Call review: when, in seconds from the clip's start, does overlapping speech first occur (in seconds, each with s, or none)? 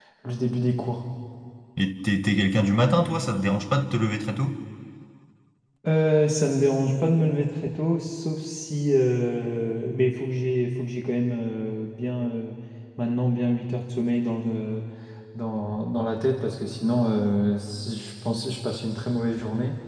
none